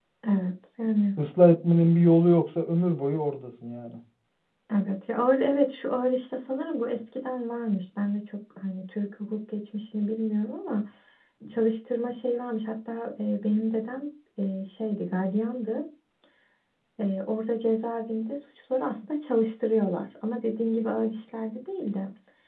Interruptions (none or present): none